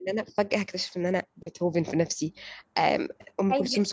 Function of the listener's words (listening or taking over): listening